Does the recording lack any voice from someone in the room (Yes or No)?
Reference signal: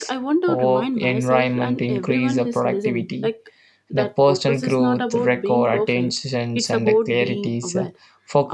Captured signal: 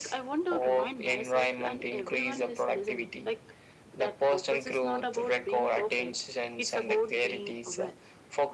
Yes